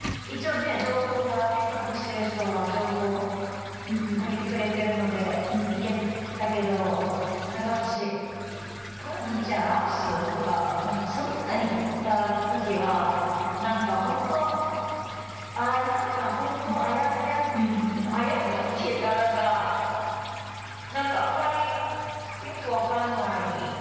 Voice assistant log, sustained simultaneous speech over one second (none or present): none